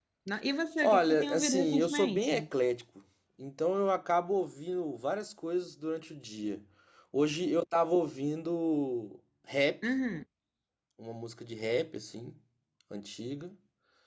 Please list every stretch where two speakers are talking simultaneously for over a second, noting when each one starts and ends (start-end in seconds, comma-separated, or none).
0.8-2.4